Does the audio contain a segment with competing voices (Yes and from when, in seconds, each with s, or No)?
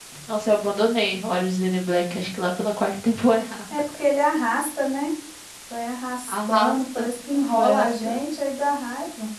Yes, from 6.3 s